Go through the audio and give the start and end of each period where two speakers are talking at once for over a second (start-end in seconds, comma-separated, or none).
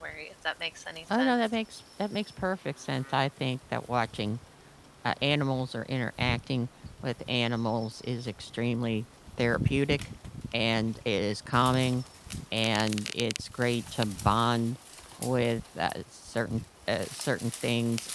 none